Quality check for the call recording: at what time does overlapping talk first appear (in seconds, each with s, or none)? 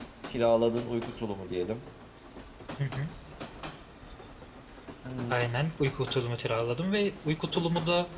none